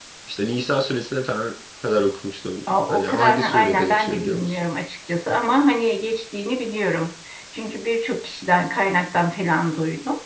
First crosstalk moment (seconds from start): 2.7 s

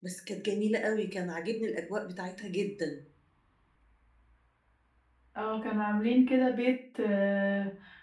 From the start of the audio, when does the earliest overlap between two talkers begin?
none

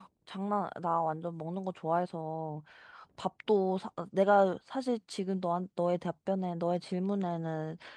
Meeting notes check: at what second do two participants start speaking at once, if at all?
none

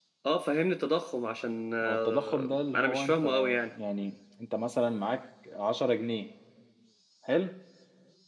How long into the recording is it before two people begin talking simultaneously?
1.8 s

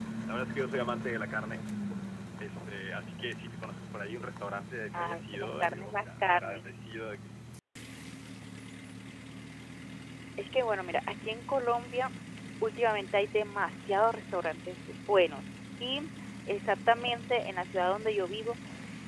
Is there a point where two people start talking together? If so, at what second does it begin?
4.9 s

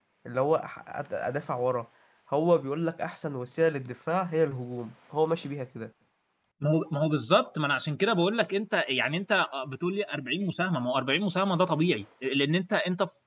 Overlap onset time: none

